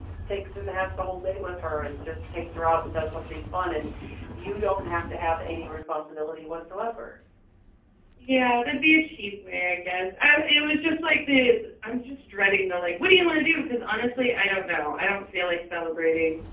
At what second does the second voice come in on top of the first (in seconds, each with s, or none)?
none